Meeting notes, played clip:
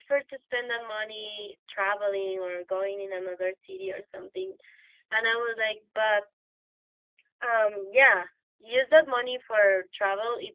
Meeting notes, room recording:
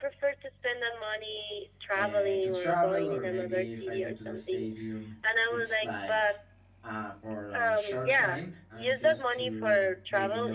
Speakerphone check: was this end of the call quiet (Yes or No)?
No